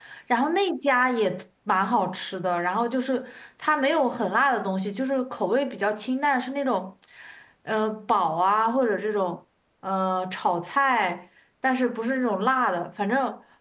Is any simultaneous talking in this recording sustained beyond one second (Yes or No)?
No